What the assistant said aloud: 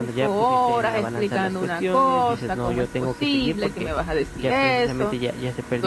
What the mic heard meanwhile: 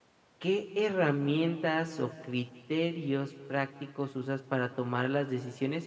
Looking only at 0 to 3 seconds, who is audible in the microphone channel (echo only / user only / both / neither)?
user only